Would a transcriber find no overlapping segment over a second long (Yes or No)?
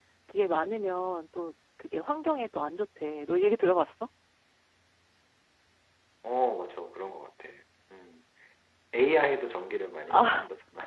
Yes